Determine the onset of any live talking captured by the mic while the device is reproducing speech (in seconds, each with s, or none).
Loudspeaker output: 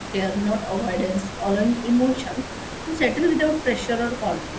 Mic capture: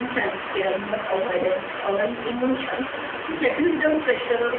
none